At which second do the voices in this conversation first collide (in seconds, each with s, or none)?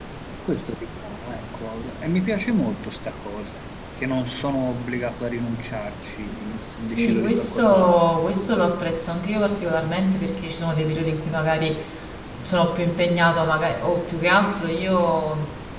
6.9 s